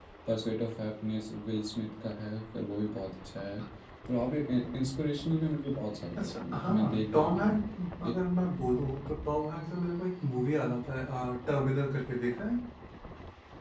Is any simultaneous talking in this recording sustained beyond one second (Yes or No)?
Yes